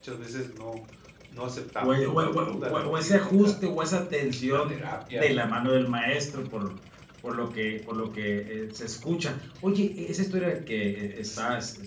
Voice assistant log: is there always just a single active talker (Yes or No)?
No